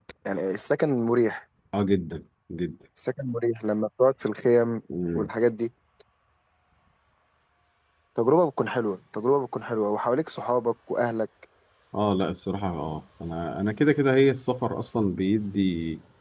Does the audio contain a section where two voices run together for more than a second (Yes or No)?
No